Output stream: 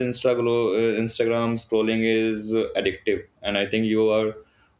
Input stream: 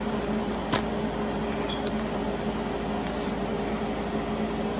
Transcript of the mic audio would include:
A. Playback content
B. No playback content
B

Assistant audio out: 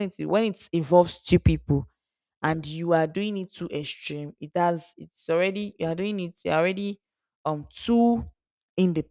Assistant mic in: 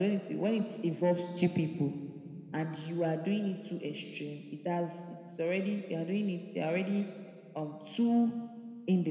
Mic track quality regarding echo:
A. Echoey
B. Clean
A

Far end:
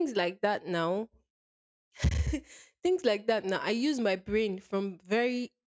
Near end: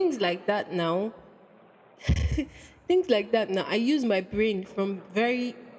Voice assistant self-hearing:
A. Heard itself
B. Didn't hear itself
A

